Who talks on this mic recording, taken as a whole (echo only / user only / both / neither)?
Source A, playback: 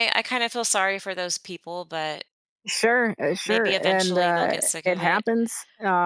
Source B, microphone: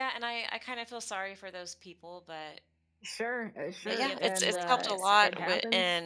both